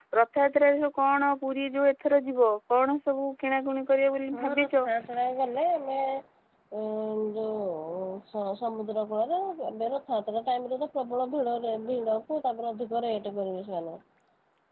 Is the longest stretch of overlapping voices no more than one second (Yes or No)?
Yes